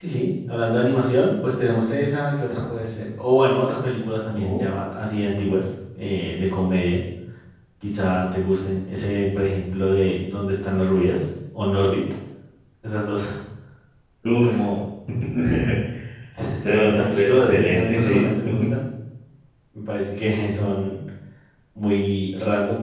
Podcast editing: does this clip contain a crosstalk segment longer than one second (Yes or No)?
Yes